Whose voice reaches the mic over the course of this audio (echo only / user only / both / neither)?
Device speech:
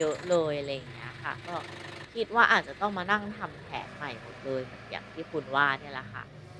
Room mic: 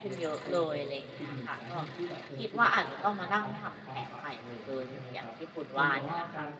both